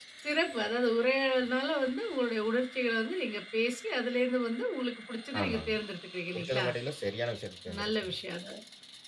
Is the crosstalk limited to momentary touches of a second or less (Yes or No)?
Yes